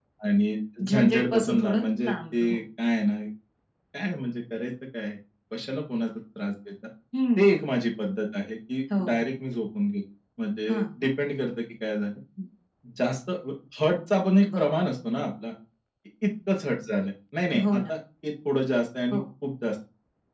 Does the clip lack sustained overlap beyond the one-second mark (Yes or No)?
No